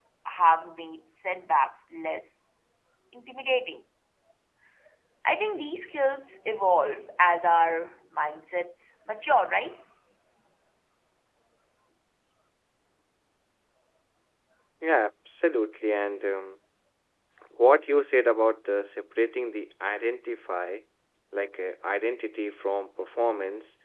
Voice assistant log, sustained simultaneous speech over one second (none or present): none